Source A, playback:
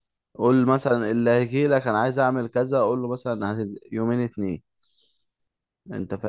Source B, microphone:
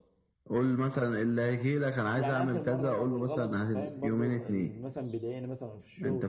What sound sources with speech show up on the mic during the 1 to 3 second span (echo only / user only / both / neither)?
both